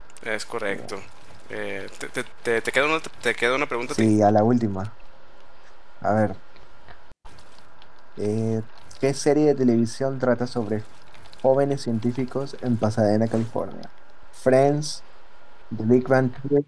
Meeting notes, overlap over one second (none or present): none